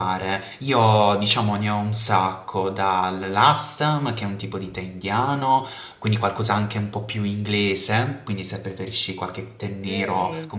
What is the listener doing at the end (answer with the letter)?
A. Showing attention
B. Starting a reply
A